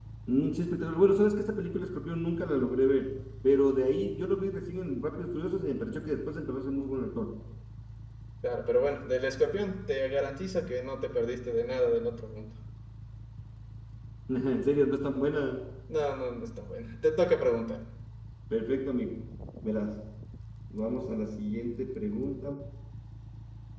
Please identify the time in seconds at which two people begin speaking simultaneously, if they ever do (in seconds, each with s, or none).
none